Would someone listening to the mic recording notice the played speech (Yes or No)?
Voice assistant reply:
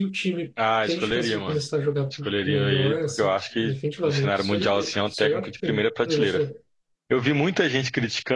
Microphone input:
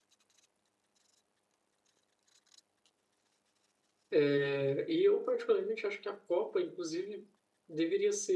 No